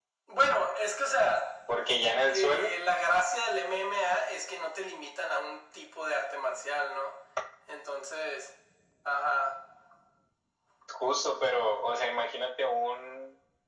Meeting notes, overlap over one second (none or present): none